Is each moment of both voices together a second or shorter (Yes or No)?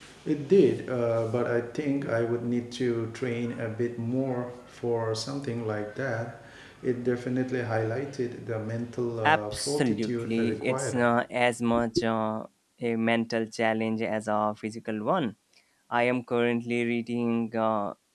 No